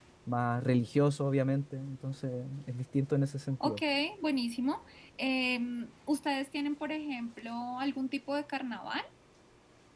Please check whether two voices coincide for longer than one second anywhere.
No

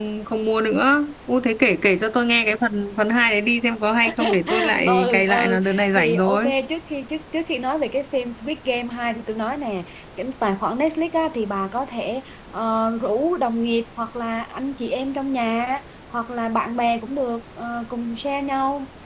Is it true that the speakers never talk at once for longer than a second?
No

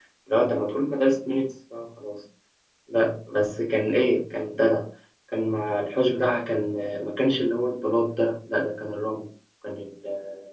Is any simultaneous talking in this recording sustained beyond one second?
No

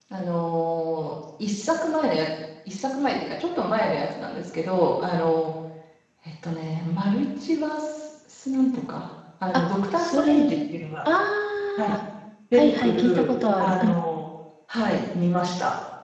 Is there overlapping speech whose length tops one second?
Yes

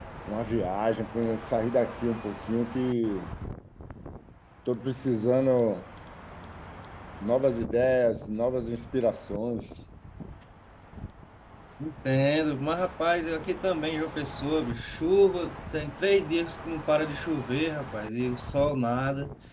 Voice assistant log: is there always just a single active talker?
Yes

